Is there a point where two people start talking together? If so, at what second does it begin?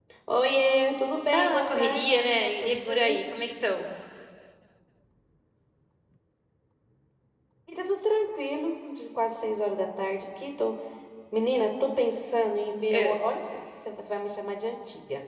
1.3 s

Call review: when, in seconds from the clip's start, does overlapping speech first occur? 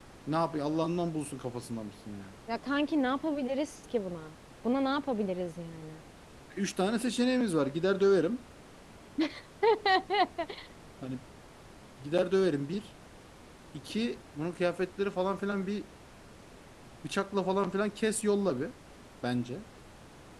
none

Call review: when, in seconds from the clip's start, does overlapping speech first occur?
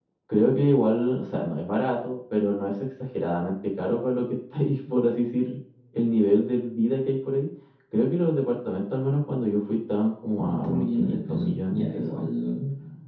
10.4 s

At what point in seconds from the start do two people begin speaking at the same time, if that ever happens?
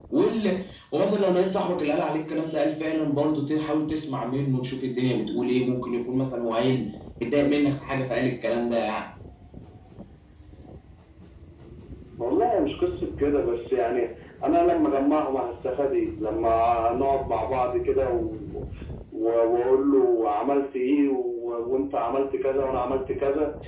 none

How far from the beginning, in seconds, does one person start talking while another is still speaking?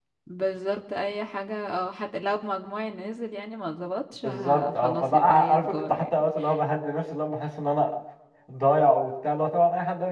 4.2 s

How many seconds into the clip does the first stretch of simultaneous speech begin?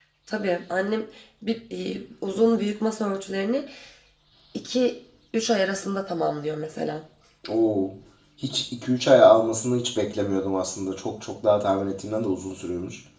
none

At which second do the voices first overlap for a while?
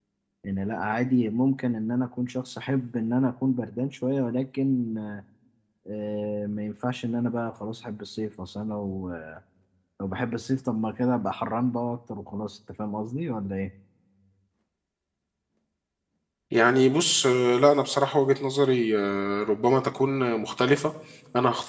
none

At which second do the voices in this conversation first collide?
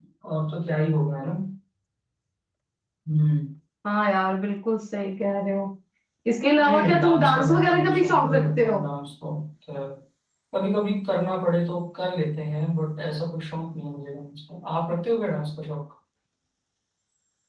6.6 s

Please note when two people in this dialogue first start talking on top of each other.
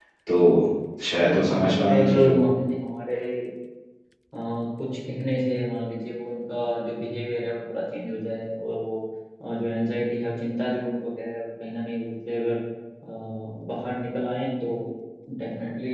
1.3 s

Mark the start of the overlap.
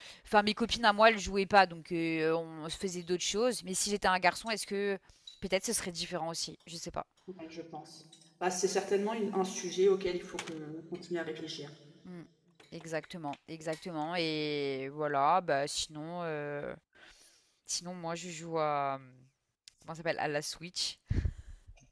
none

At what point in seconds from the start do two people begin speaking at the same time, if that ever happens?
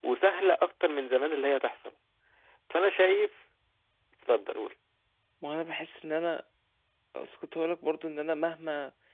none

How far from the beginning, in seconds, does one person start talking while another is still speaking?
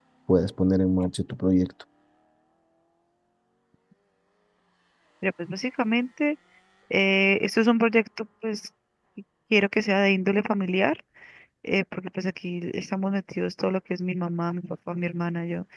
none

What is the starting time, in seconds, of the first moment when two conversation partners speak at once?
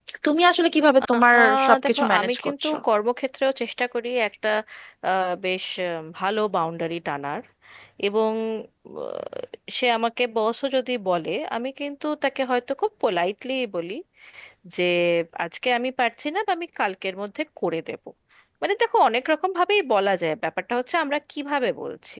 1.1 s

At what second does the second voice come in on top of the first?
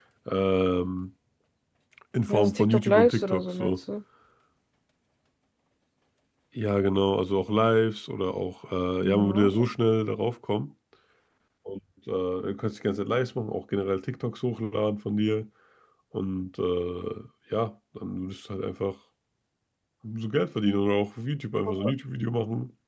2.3 s

